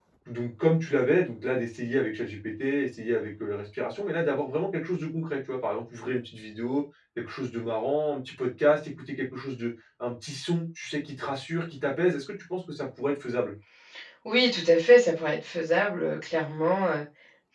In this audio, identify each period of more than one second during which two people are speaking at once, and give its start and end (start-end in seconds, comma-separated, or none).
none